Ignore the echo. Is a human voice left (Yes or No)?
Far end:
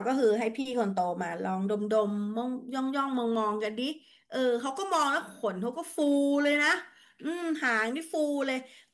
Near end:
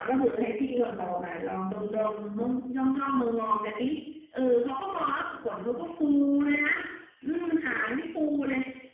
No